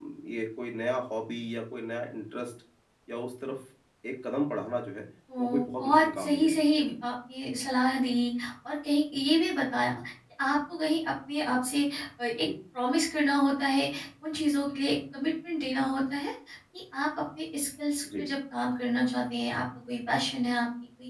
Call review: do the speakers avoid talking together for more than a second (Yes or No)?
No